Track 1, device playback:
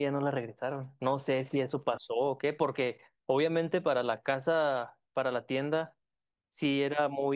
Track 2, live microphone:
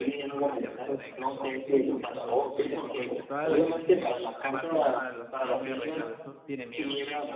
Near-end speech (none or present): present